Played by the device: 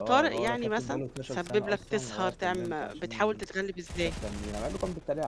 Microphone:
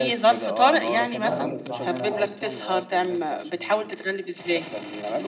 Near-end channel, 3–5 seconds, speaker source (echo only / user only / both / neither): echo only